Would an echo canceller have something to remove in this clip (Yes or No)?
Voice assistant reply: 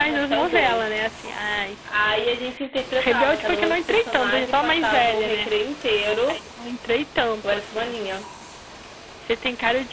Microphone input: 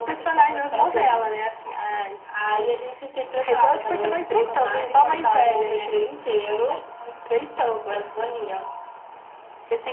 Yes